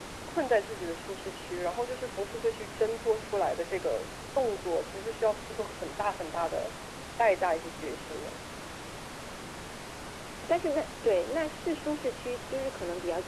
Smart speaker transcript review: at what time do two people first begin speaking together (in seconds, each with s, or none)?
none